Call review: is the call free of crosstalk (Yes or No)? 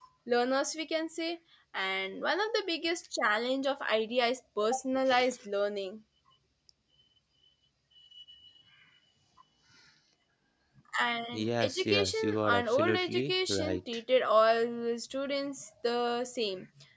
No